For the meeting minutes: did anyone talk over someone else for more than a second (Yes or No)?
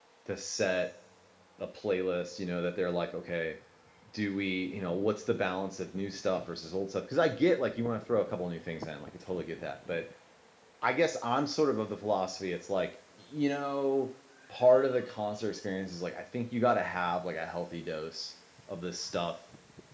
No